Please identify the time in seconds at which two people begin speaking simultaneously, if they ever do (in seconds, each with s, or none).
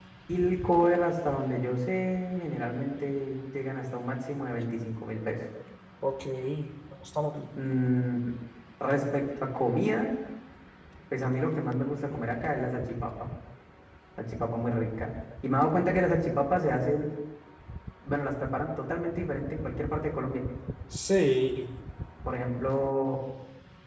none